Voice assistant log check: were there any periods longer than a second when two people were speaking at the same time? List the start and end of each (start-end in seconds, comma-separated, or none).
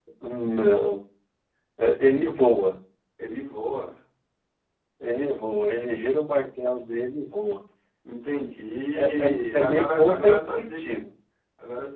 9.0-11.0